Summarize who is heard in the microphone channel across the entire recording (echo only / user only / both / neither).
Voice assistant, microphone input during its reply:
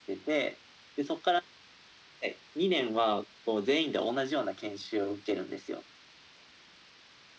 echo only